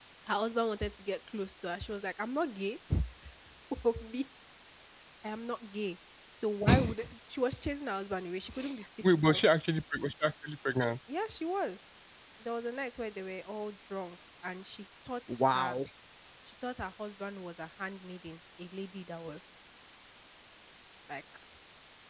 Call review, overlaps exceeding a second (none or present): none